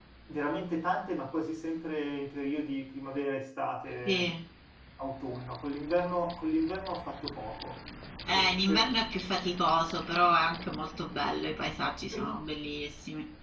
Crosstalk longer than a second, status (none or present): none